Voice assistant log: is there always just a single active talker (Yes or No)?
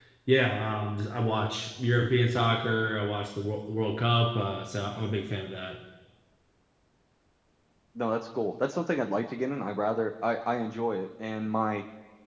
Yes